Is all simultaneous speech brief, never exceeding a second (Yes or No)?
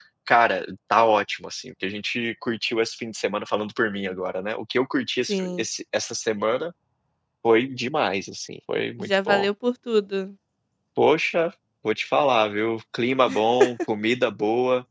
Yes